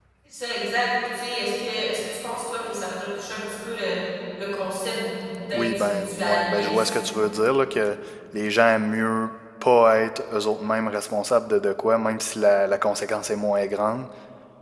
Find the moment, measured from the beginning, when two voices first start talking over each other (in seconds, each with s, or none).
5.5 s